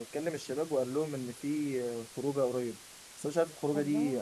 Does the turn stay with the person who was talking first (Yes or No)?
Yes